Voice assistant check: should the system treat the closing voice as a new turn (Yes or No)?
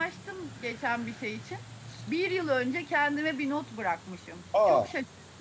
No